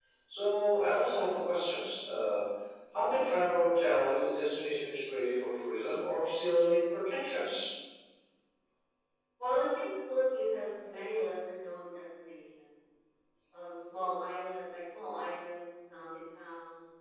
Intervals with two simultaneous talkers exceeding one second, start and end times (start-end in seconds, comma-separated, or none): none